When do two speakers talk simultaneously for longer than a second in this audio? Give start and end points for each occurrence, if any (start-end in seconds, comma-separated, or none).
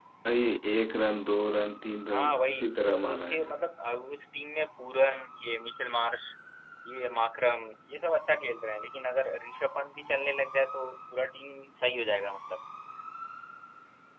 2.1-3.5